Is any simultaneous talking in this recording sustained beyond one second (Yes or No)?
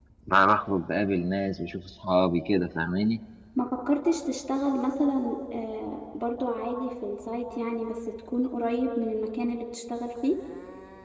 No